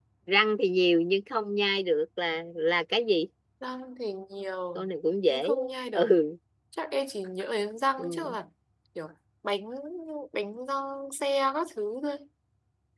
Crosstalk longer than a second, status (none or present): none